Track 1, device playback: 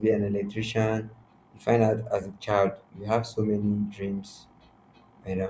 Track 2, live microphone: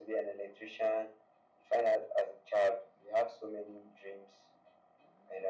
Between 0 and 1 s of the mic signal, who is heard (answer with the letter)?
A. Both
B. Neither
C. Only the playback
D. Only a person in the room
C